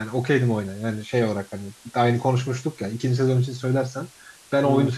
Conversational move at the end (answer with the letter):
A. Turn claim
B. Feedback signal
B